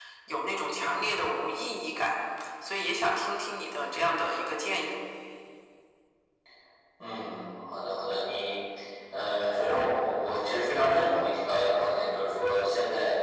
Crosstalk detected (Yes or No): No